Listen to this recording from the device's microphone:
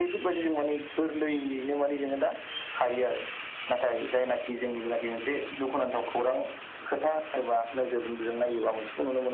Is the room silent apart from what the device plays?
Yes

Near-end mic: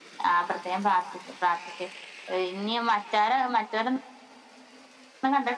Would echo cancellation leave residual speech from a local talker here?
No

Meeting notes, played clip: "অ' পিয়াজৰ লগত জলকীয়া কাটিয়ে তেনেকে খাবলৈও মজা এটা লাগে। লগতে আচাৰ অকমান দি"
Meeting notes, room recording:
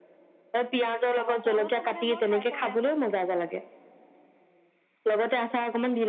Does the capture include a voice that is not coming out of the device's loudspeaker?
Yes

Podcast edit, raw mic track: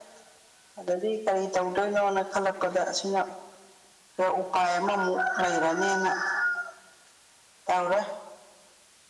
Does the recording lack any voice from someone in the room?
Yes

